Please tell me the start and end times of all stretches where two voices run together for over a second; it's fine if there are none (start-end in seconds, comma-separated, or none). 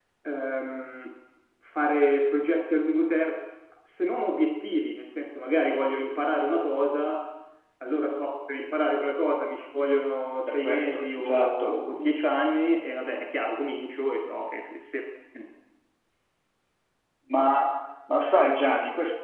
10.5-12.1